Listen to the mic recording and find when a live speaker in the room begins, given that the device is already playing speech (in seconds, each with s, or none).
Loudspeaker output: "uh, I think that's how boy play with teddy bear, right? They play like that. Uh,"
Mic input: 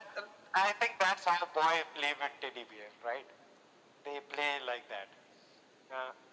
none